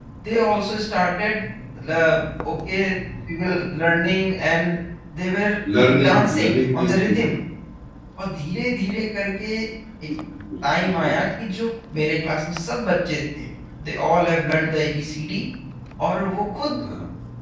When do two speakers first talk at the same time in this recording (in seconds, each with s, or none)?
5.8 s